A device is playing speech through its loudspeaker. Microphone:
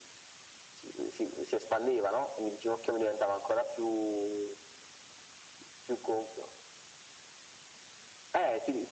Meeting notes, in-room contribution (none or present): none